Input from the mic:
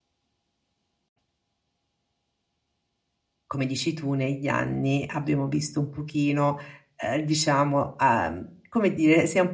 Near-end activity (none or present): present